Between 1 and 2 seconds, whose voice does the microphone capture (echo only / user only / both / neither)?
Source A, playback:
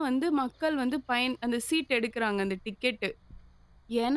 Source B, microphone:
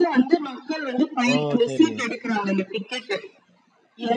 both